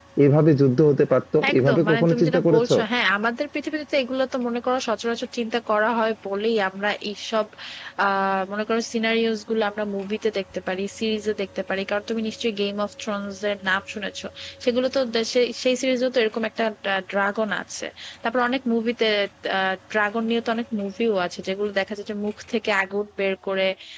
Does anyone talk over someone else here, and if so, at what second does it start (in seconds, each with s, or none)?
1.4 s